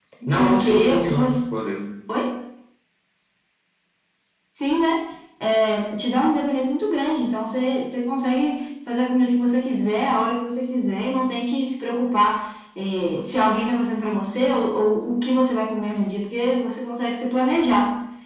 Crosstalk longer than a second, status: present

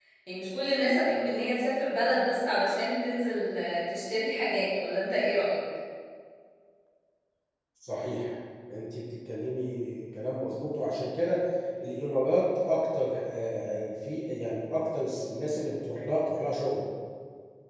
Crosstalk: none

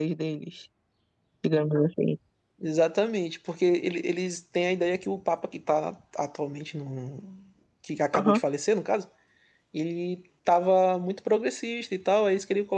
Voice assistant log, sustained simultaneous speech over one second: none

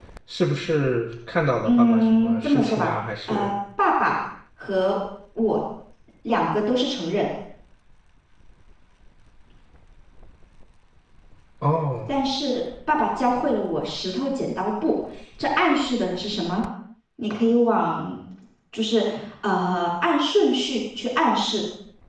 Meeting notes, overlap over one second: present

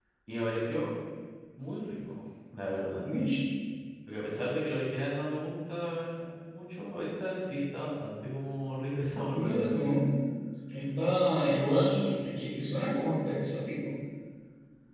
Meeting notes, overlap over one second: none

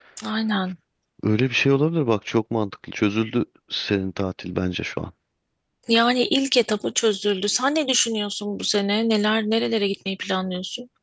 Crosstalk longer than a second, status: none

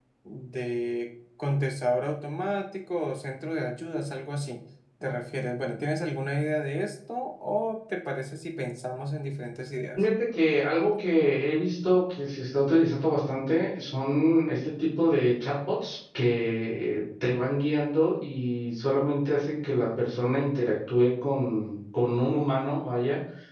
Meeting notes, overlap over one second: none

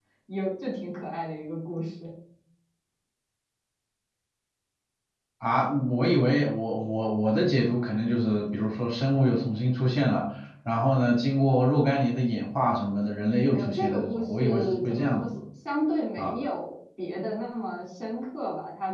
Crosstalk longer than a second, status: present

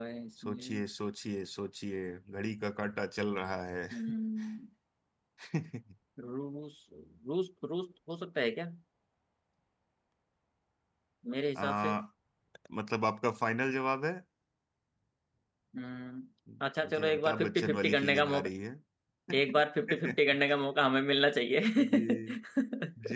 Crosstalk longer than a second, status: present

